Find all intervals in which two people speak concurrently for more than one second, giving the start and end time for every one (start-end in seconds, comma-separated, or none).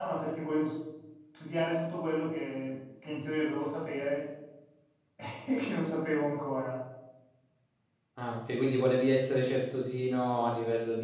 none